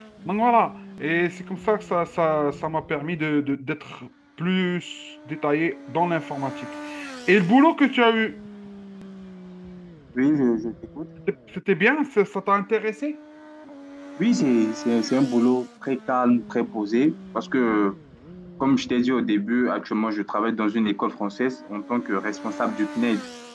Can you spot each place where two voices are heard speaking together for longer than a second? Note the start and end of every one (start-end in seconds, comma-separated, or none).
none